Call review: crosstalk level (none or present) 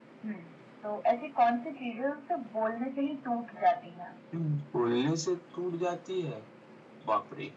none